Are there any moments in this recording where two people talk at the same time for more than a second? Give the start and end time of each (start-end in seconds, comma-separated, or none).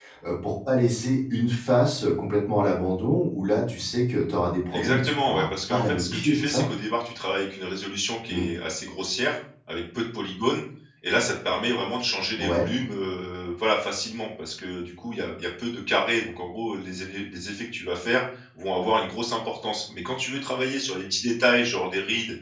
4.7-6.7